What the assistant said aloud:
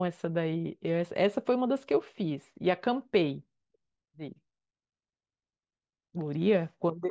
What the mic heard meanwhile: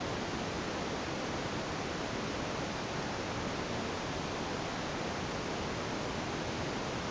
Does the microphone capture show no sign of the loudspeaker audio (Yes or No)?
Yes